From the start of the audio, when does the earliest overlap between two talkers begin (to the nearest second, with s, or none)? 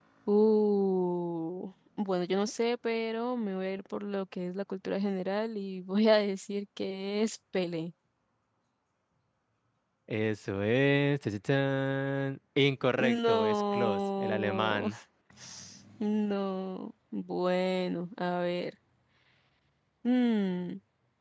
13 s